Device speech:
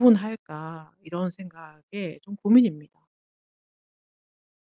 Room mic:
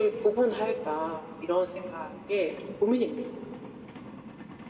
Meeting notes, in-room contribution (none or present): none